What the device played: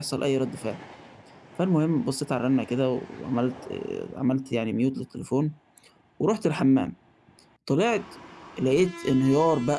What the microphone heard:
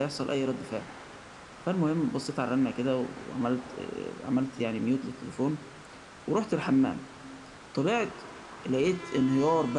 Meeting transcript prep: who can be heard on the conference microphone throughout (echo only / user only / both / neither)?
echo only